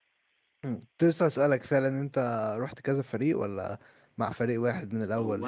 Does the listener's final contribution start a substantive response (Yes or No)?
Yes